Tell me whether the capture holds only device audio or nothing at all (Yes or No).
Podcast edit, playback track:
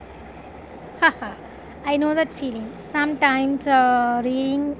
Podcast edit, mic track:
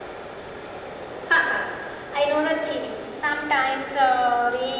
Yes